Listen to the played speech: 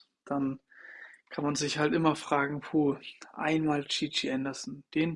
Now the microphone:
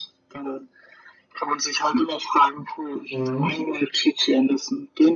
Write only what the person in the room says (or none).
Mhm.